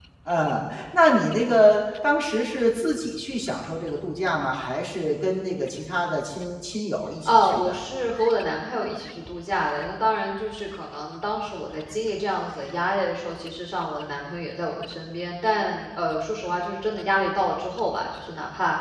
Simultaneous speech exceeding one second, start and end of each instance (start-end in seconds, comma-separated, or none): none